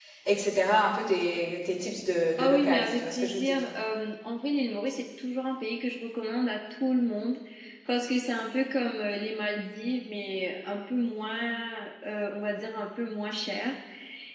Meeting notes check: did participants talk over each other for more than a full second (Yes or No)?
Yes